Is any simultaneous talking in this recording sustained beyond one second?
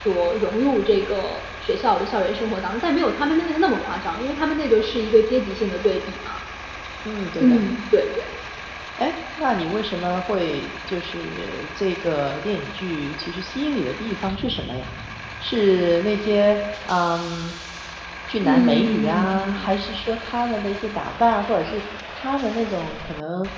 Yes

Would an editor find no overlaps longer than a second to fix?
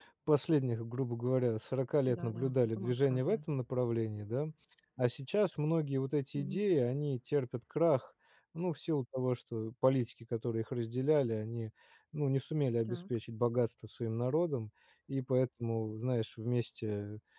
No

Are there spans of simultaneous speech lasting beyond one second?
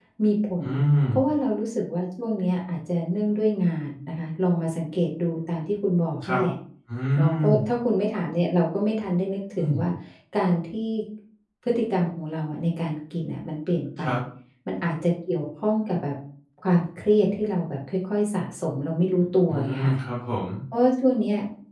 No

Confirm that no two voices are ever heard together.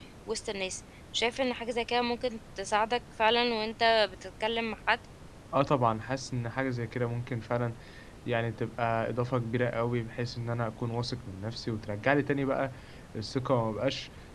Yes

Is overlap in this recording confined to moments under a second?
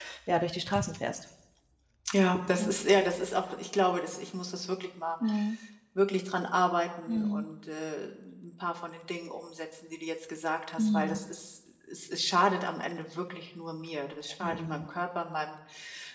Yes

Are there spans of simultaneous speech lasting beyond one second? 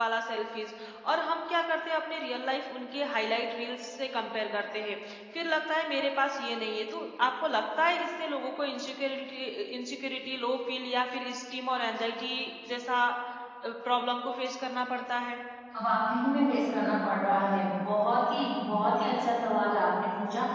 No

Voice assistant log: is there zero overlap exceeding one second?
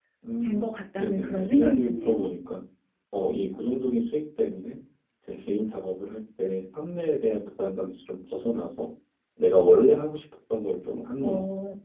No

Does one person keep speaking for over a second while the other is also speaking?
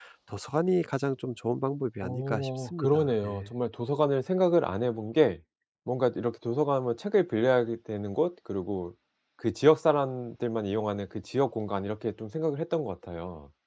Yes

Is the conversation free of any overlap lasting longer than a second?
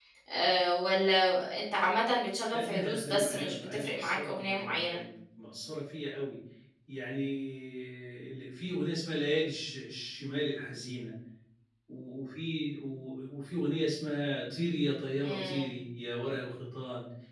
No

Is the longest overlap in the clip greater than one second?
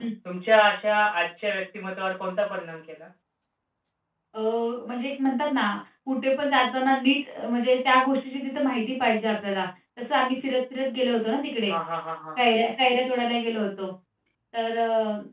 No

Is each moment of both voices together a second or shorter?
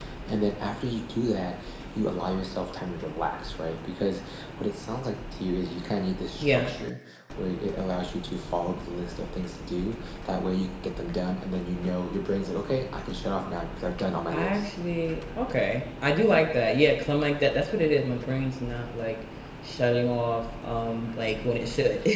Yes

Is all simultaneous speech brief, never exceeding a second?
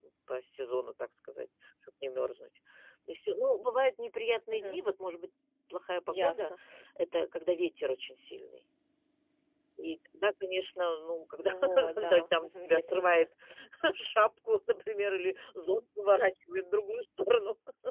No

